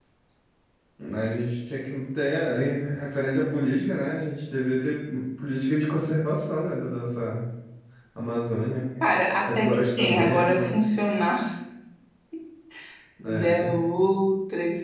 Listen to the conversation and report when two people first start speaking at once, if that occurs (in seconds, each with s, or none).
9.5 s